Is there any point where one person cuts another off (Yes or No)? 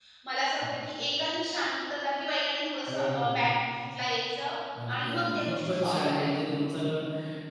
Yes